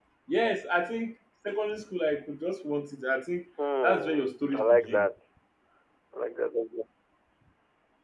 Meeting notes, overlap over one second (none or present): present